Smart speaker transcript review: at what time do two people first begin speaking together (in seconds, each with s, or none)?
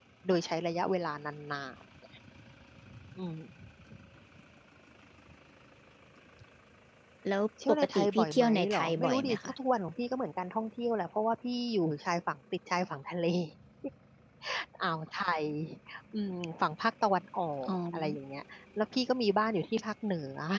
7.7 s